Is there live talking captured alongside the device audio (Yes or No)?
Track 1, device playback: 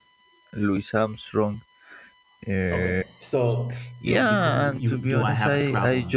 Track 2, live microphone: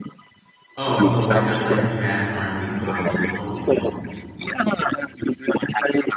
Yes